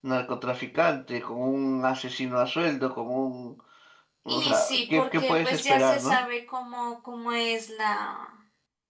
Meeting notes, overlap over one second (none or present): present